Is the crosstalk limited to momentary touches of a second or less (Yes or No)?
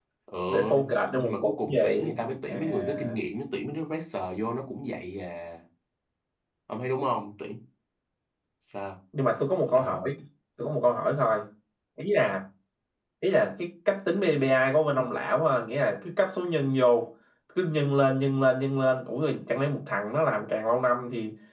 No